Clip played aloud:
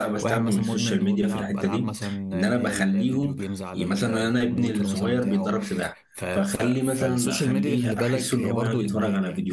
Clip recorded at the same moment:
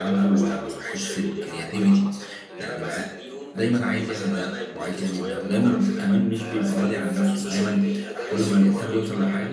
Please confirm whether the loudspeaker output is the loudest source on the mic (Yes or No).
No